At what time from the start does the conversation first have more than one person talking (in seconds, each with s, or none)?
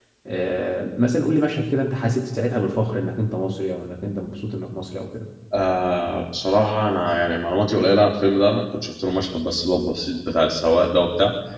none